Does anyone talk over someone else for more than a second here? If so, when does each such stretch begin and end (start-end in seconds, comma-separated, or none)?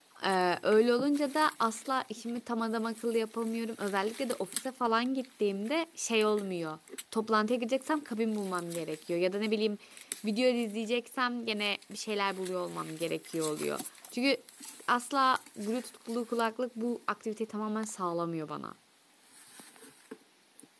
none